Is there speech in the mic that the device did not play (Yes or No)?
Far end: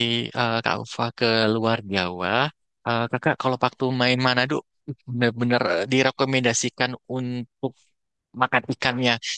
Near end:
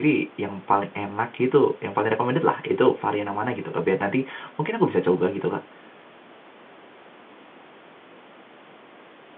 Yes